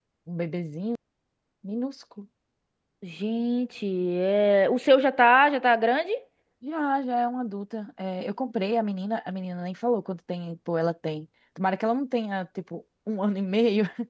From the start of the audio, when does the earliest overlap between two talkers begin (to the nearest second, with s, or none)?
none